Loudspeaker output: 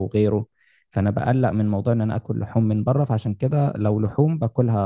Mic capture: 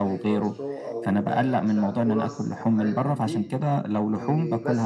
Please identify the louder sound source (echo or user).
echo